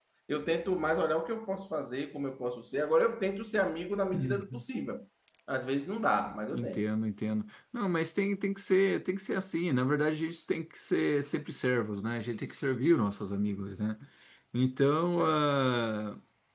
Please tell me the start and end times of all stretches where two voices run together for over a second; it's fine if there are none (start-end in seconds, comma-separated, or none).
none